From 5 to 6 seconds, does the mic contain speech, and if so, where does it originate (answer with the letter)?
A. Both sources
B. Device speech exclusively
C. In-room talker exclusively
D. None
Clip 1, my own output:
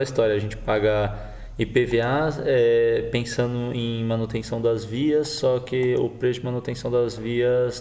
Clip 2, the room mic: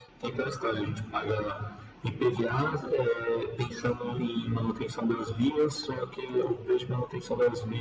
B